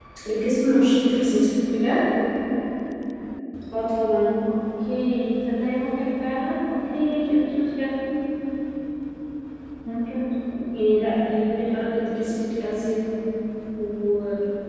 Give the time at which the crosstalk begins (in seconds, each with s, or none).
none